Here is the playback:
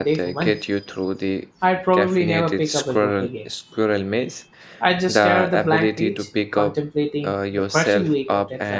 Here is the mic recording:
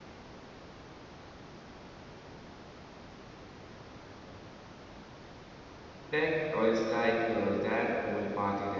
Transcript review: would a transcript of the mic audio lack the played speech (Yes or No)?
Yes